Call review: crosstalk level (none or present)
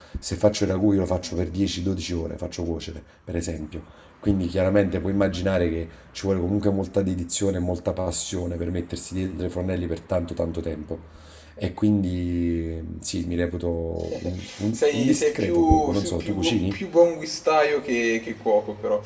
present